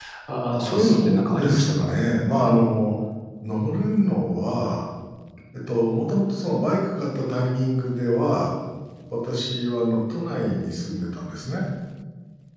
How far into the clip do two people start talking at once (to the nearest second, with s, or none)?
1 s